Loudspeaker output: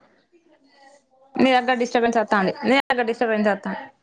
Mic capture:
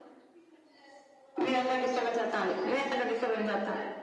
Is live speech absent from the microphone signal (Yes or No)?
Yes